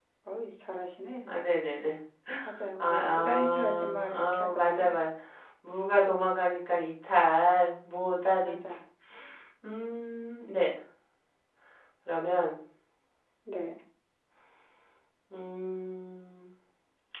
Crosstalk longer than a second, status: present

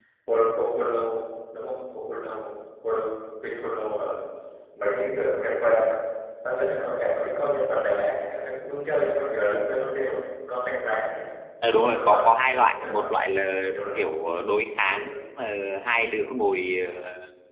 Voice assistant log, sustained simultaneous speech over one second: present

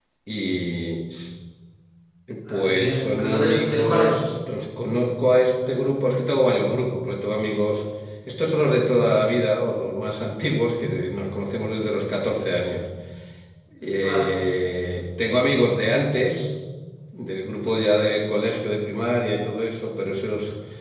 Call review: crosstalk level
present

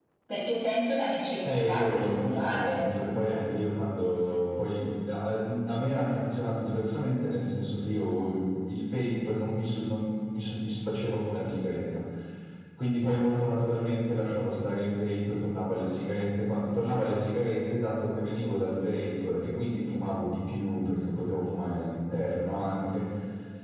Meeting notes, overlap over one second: present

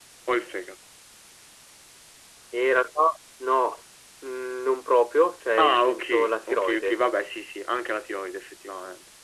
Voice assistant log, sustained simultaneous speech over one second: present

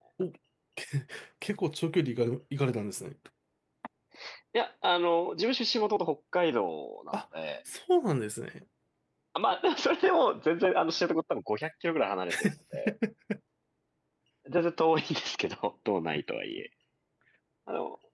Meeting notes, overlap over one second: none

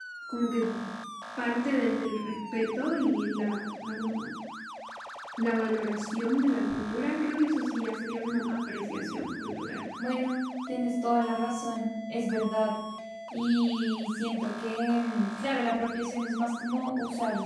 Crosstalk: none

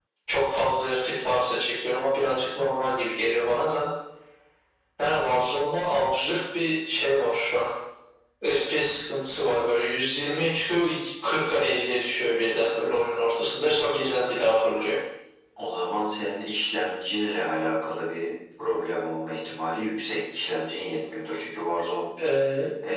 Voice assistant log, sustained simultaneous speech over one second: none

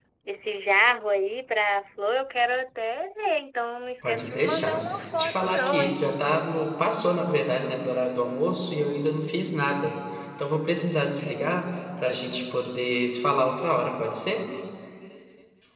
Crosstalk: present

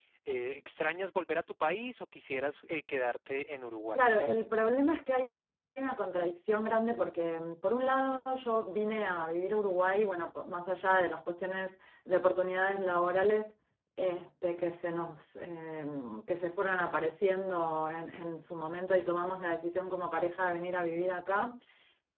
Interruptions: none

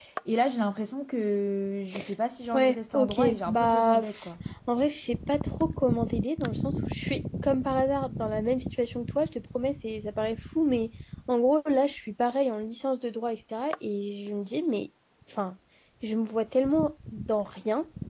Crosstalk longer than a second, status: present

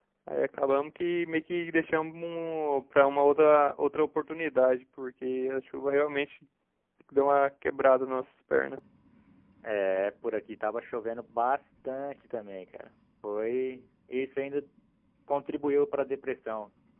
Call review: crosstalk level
none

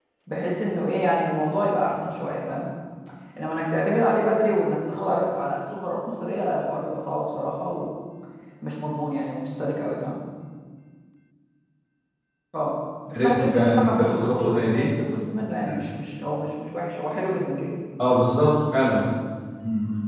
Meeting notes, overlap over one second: present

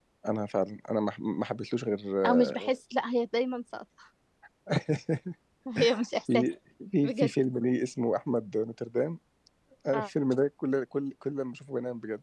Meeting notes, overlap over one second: none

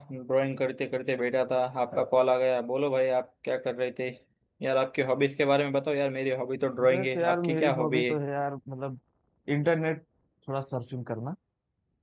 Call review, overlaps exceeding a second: present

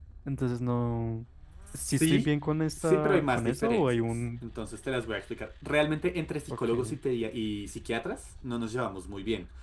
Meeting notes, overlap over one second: present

